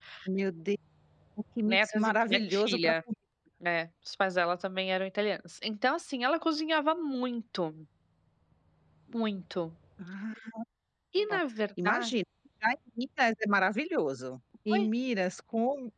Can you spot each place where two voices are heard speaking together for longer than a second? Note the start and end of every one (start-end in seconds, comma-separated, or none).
1.7-3.0